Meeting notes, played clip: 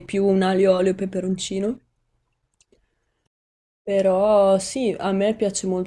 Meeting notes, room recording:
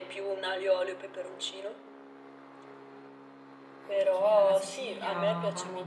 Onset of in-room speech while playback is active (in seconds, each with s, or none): 3.8 s